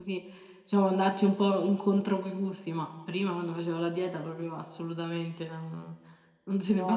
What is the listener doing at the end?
listening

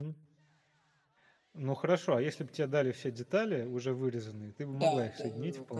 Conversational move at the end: taking over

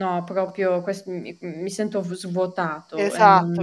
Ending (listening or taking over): taking over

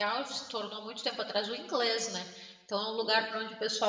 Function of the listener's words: listening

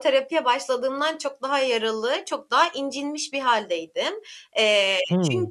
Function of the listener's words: listening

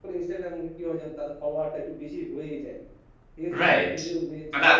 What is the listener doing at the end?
taking over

